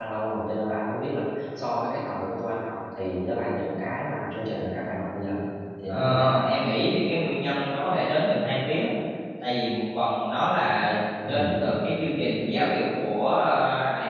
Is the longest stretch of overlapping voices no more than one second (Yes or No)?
Yes